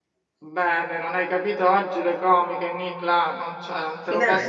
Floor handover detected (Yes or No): No